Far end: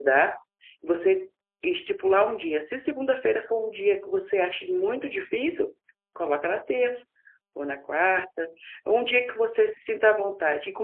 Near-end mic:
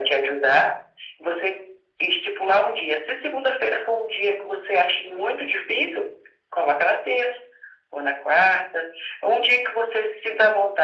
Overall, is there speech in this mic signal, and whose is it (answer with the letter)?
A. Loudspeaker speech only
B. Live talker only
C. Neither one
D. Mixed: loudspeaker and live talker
A